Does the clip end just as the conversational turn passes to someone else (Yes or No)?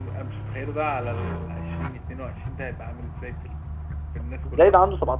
Yes